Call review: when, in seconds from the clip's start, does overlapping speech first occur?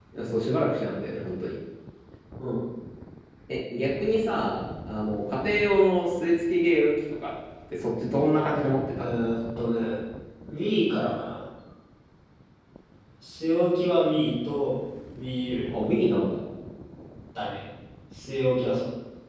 none

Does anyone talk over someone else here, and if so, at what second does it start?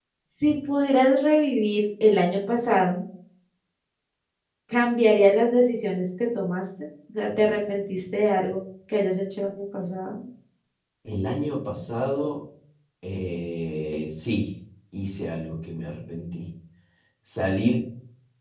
none

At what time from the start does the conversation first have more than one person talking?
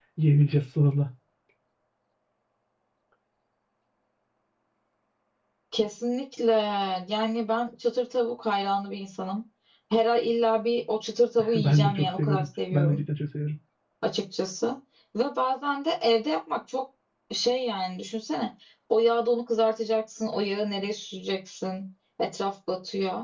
11.4 s

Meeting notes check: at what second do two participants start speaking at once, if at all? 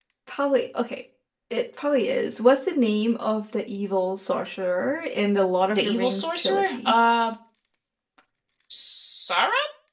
5.7 s

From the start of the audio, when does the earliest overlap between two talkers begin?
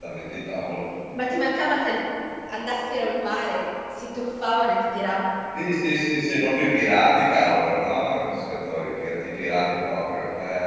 none

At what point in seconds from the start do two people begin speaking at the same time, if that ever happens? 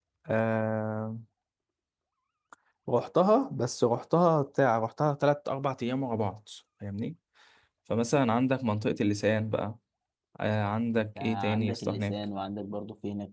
10.9 s

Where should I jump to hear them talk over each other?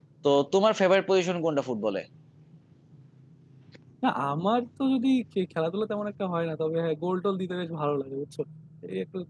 none

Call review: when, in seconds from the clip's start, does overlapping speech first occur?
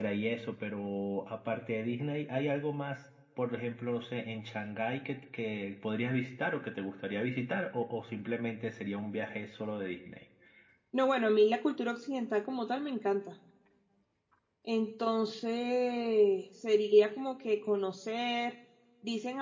none

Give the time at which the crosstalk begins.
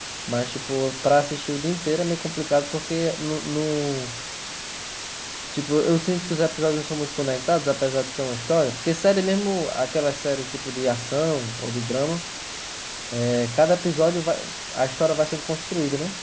none

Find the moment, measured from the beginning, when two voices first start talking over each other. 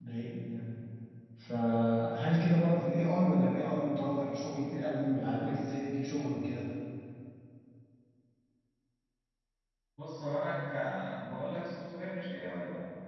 none

